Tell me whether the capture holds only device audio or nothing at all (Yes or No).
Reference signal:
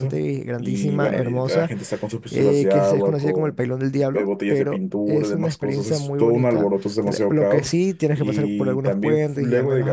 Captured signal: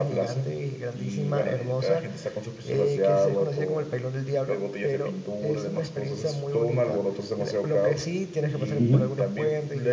No